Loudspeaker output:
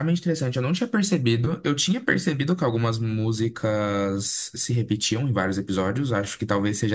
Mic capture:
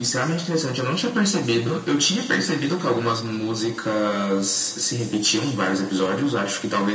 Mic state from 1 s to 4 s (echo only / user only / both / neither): echo only